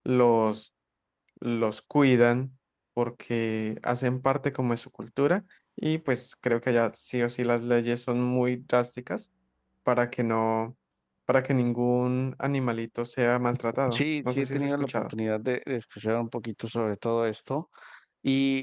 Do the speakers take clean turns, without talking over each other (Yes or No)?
No